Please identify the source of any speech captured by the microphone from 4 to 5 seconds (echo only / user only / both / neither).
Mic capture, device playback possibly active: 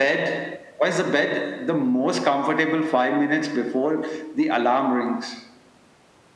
echo only